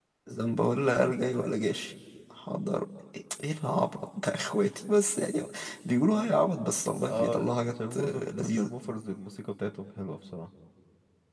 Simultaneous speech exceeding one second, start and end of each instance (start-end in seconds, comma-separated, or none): 7.1-8.7